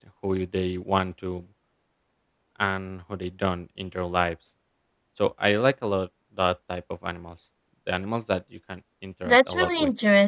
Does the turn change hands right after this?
Yes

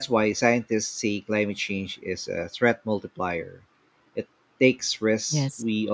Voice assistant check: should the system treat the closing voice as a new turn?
No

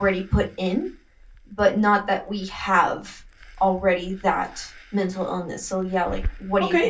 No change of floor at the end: No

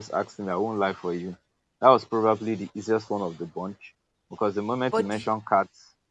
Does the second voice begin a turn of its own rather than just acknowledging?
No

